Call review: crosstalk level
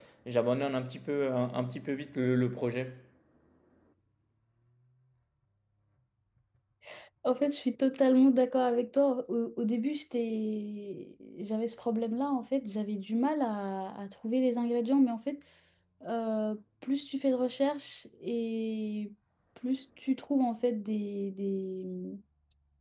none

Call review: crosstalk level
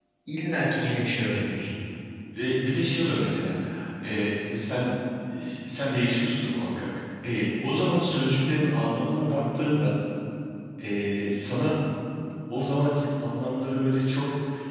none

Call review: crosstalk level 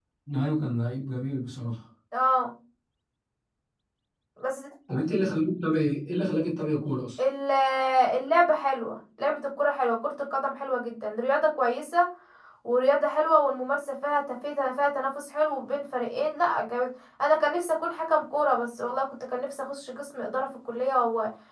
none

